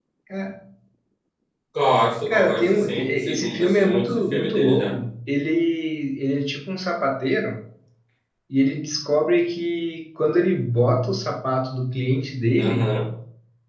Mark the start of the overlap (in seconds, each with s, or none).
2.3 s